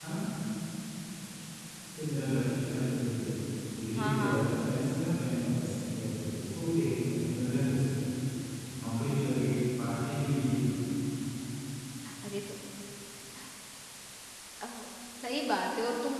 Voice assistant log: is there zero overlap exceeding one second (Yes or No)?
Yes